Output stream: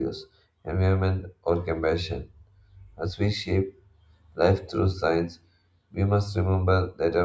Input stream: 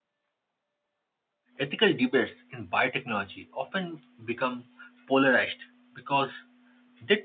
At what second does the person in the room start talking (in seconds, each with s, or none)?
1.6 s